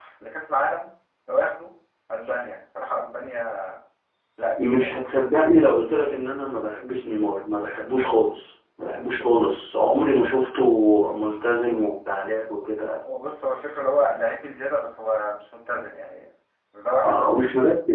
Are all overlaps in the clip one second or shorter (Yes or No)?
Yes